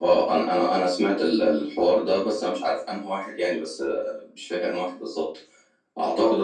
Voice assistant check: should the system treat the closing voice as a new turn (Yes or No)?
No